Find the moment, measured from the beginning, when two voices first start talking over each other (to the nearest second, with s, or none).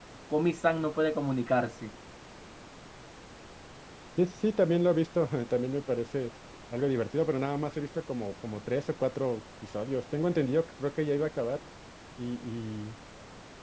none